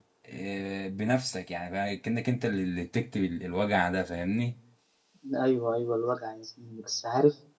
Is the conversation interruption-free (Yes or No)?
Yes